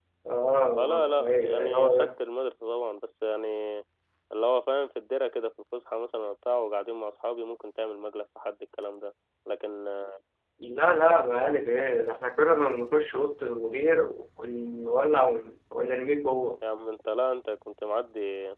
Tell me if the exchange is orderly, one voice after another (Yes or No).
No